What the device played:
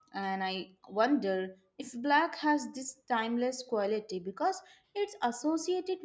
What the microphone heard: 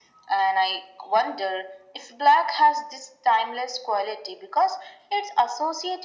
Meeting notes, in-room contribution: none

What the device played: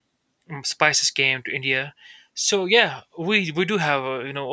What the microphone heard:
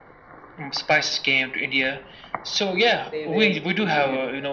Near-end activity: present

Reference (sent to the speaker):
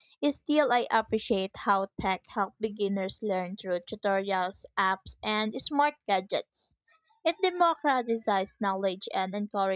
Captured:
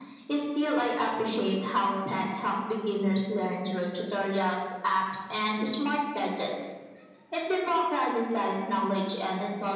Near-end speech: none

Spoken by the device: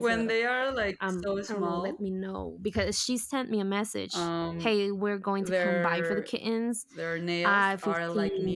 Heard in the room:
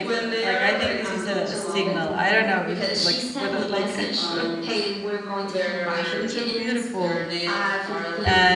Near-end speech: present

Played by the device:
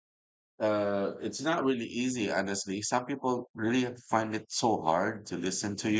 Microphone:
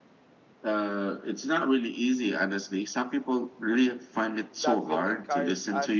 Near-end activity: present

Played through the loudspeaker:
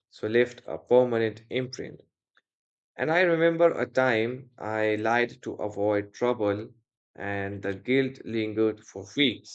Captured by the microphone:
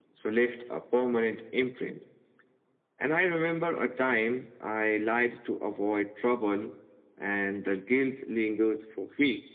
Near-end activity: none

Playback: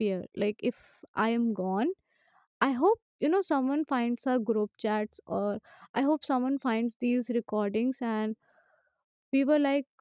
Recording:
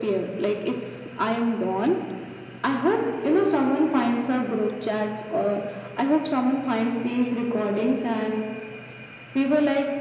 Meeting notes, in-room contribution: none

